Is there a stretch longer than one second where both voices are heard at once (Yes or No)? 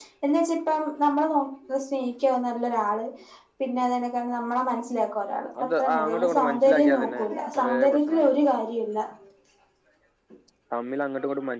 Yes